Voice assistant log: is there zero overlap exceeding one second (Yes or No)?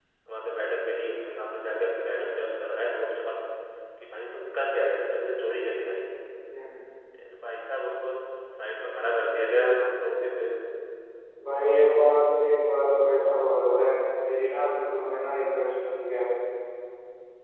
Yes